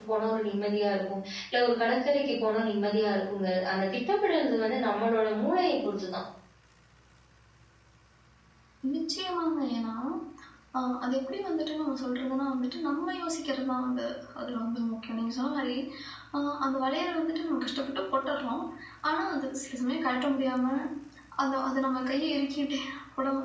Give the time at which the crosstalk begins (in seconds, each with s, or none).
none